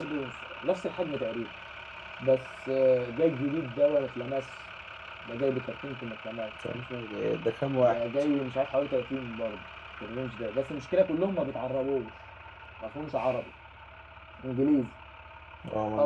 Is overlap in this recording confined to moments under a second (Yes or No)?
Yes